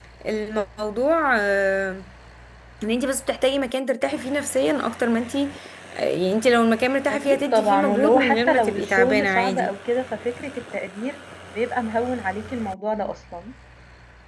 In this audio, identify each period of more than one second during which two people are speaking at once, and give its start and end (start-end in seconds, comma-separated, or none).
7.1-9.7